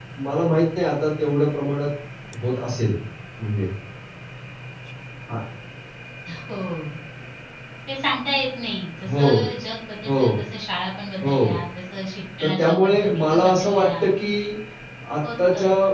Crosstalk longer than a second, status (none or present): present